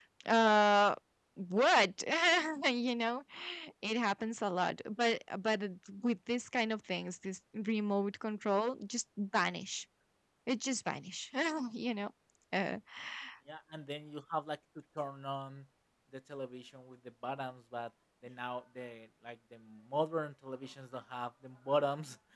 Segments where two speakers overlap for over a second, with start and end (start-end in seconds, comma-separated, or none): none